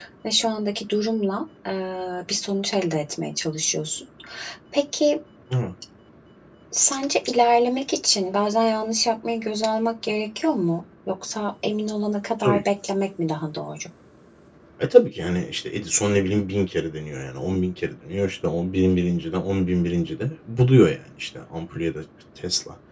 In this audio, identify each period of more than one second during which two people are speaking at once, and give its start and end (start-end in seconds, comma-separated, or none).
none